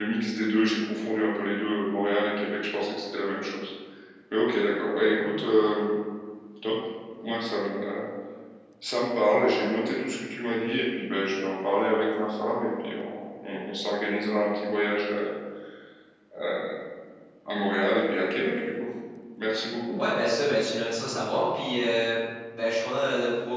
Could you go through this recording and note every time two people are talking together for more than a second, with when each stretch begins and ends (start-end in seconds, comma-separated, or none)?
none